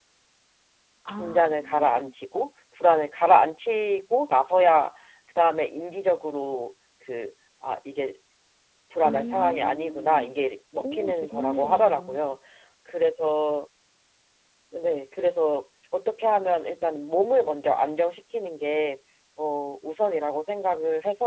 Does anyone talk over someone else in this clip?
Yes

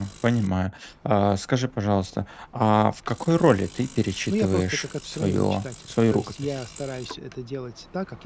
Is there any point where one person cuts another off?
Yes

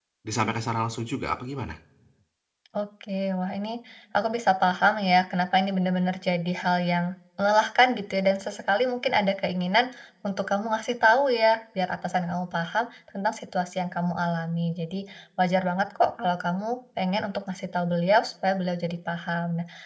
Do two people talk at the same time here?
No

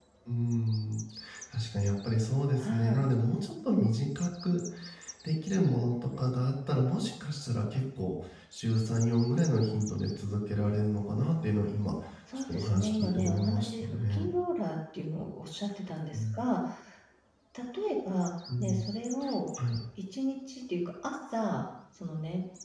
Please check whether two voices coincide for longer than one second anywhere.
Yes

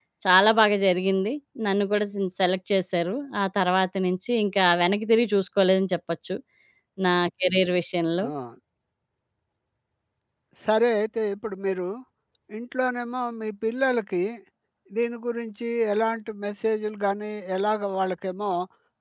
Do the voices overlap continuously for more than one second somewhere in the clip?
No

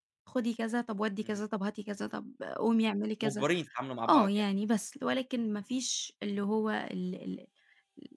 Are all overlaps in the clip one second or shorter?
Yes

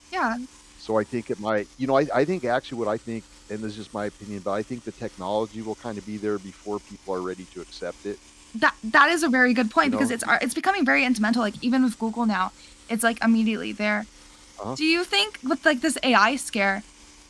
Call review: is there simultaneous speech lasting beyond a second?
No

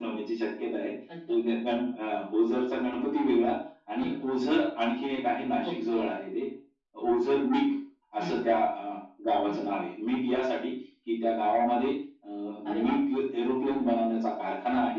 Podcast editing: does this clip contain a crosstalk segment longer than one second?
No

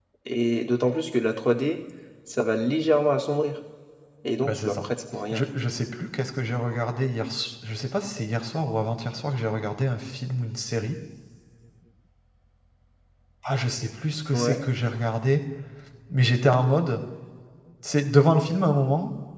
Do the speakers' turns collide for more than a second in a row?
No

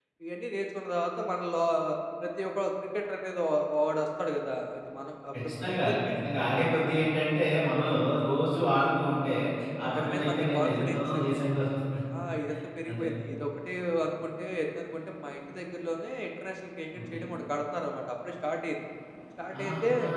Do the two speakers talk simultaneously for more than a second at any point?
Yes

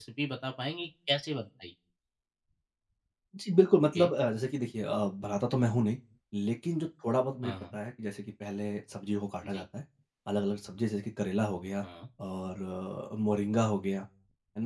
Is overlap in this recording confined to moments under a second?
Yes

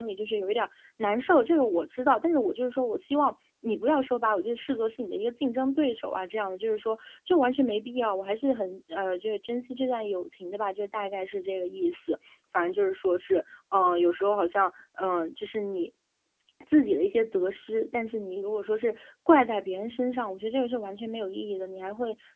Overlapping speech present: No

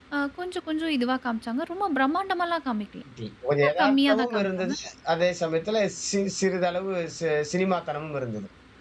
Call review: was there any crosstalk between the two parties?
Yes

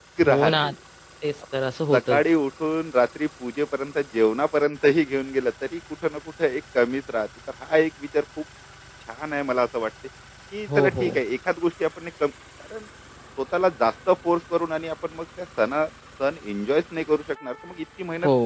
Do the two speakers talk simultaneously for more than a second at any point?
No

